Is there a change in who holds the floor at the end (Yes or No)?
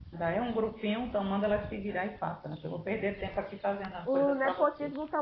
Yes